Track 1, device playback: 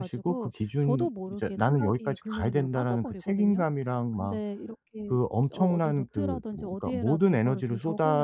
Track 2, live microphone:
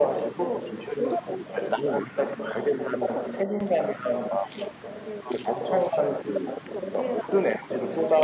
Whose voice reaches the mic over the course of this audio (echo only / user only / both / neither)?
echo only